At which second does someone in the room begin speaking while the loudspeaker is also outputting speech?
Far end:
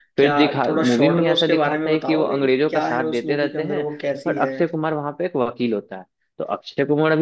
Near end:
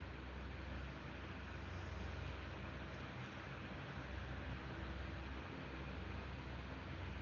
none

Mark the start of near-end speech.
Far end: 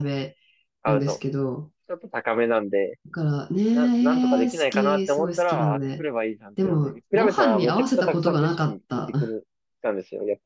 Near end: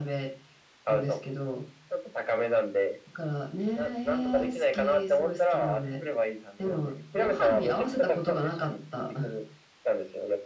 none

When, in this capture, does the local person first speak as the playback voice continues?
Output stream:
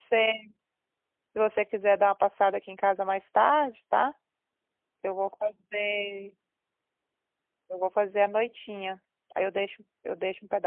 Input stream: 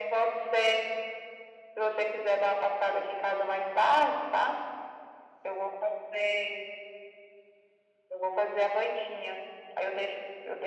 none

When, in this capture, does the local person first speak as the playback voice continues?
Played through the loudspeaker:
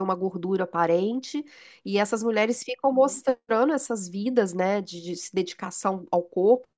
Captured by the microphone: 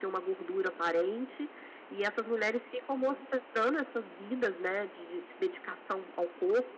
none

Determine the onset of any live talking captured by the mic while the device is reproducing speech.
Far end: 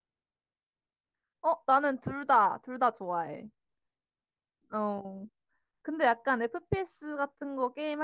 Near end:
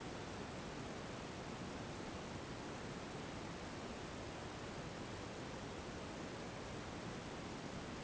none

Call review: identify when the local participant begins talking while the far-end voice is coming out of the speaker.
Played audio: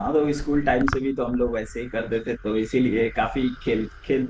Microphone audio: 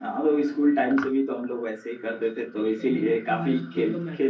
2.5 s

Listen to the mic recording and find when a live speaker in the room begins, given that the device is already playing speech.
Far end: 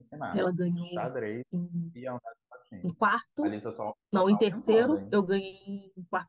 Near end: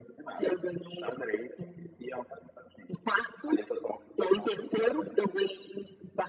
none

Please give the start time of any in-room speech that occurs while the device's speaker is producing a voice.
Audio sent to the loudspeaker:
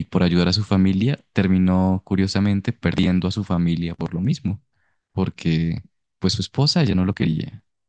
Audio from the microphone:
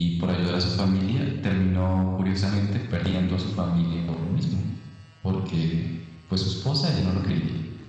none

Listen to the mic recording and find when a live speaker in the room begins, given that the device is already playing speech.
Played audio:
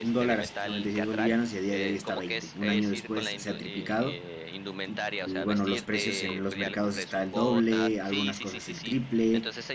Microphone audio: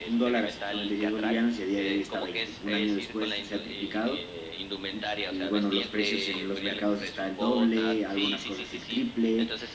none

